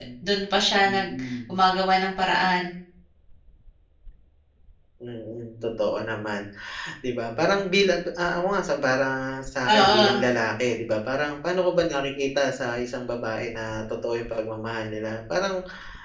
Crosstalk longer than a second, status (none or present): none